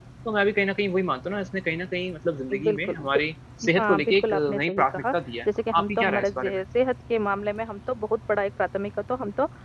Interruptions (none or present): present